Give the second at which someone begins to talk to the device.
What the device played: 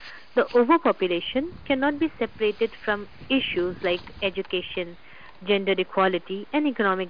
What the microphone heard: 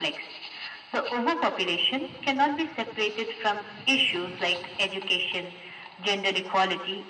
none

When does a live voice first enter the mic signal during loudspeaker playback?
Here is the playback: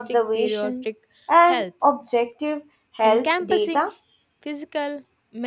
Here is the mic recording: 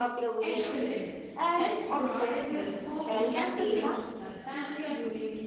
0.4 s

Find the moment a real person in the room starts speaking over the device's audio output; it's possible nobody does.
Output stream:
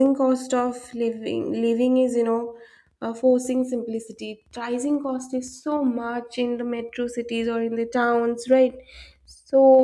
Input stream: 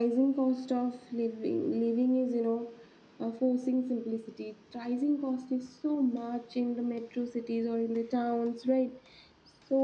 none

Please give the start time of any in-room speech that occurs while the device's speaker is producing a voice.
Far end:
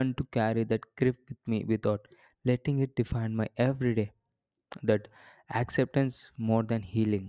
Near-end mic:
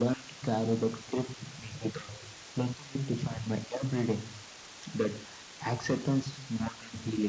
none

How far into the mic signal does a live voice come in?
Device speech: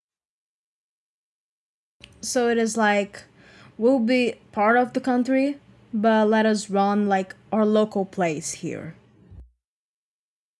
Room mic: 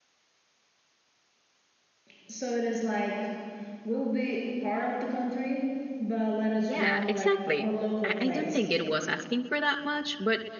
6.5 s

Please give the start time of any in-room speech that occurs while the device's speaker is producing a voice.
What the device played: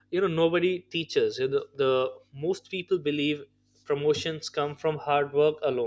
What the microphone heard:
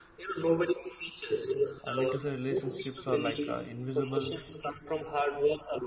1.9 s

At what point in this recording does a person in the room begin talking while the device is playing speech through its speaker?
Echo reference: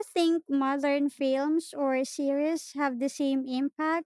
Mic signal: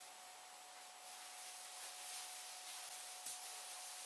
none

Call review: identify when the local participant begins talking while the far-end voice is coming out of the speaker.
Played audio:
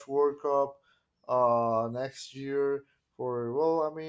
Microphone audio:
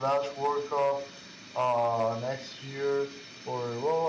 none

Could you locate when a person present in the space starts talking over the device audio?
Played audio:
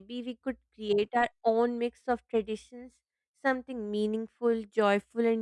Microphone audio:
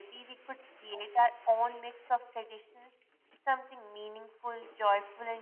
none

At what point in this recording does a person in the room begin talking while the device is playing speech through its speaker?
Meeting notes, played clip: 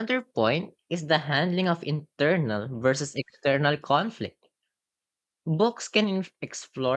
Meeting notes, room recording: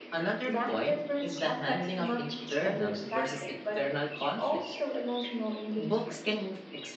0.5 s

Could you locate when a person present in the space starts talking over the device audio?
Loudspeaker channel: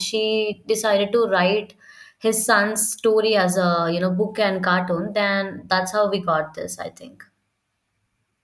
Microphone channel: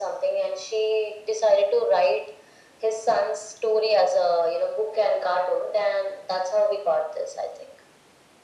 none

